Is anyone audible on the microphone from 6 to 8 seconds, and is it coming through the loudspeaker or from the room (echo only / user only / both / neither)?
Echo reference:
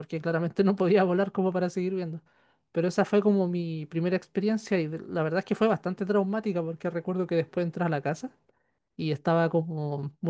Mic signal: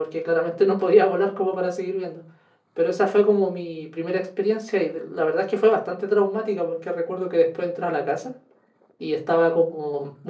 echo only